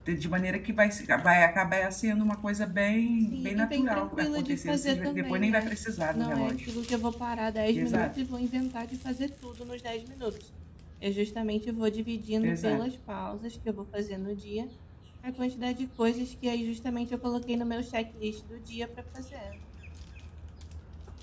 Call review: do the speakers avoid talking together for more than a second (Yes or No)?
No